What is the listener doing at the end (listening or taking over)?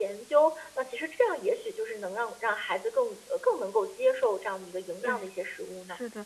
taking over